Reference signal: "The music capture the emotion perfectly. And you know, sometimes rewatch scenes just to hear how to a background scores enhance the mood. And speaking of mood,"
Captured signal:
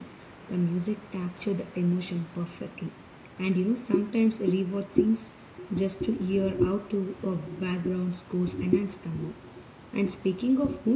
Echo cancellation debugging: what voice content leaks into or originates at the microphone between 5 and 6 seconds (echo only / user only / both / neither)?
echo only